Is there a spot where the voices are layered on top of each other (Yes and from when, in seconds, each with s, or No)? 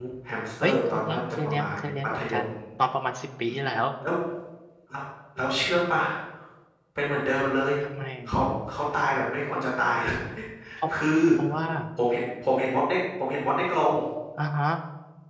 Yes, from 0.6 s